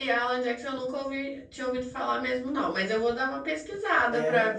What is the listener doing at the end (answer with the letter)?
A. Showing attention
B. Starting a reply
B